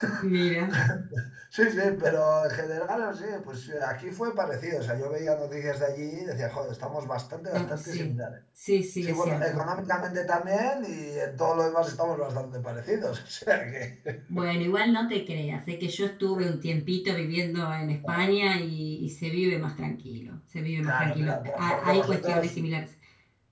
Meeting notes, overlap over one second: present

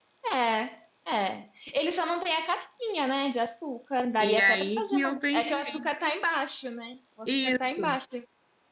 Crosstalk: present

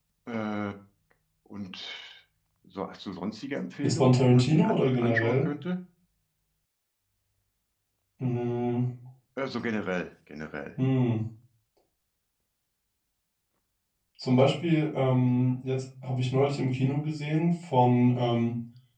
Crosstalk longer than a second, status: present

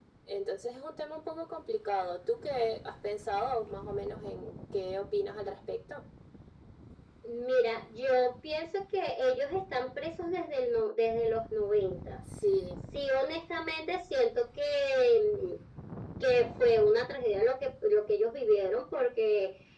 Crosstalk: none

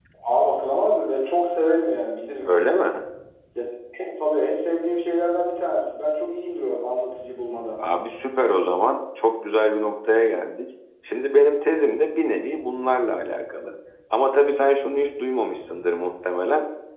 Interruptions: none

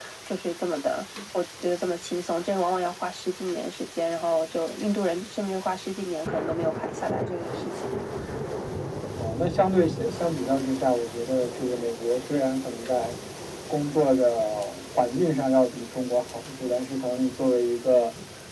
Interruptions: none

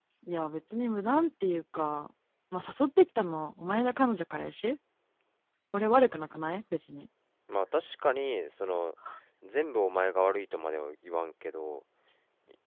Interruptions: none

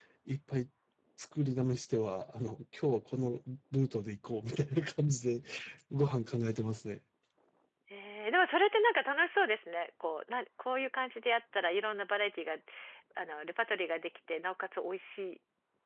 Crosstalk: none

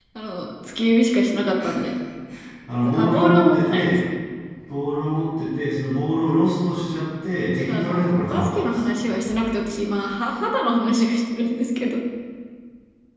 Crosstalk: present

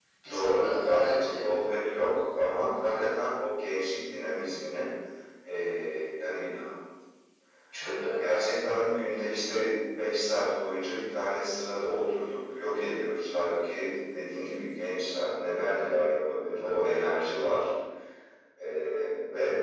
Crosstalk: present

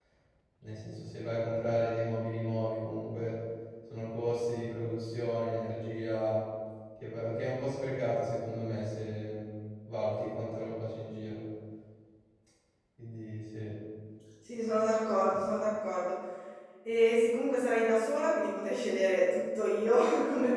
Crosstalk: none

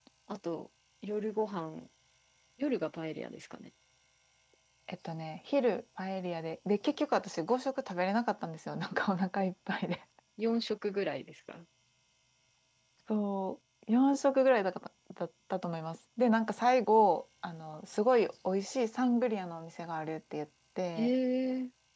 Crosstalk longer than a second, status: none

